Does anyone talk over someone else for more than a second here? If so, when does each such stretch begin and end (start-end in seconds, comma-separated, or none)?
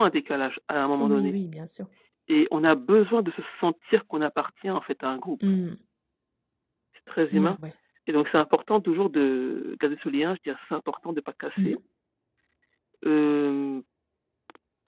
none